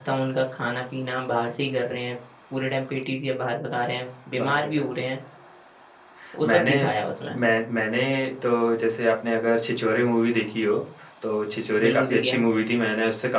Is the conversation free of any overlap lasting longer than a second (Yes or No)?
Yes